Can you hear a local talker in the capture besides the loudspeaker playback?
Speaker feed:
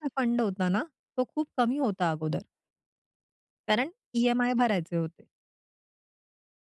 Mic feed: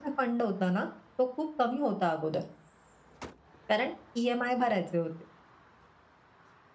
No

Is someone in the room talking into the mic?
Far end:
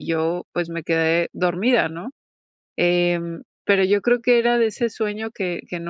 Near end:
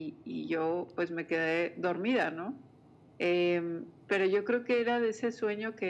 No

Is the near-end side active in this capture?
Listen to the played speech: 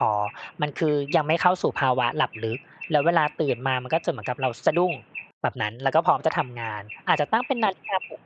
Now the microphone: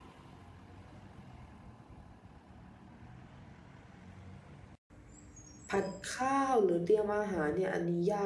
Yes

